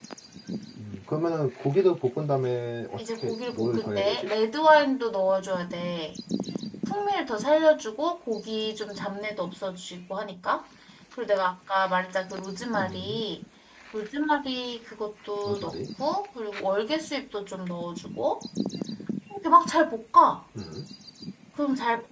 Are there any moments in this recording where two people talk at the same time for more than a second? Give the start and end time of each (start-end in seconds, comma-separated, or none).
3.0-4.3